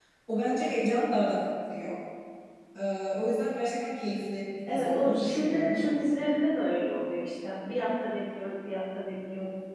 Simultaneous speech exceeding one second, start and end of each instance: 4.7-6.0

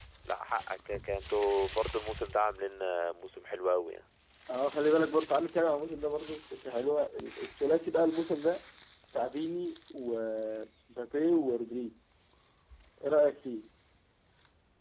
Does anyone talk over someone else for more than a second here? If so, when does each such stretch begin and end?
none

